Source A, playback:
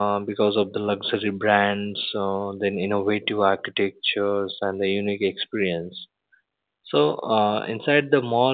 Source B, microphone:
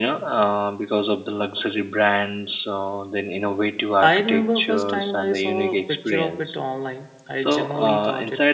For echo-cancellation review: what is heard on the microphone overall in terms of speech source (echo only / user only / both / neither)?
both